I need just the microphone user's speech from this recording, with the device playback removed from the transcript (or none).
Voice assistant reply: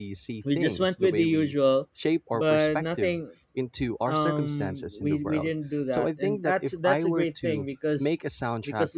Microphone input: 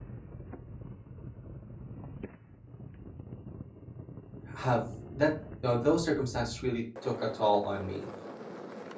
have that you know, those circumstances really took a toll on me